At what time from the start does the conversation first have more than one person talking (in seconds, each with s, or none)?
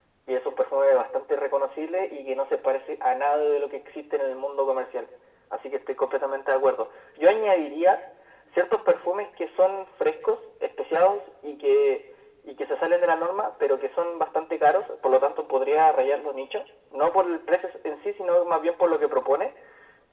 none